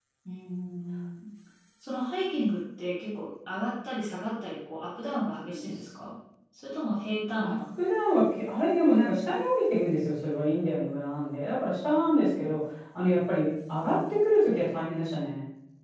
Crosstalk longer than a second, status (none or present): none